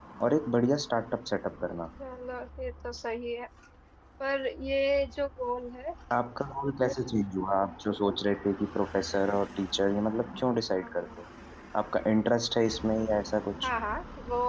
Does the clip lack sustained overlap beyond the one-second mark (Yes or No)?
Yes